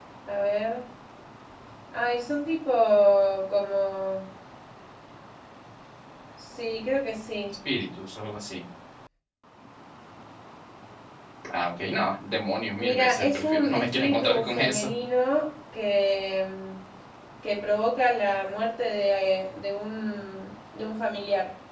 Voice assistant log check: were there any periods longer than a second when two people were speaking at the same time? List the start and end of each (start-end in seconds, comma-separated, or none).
12.8-14.9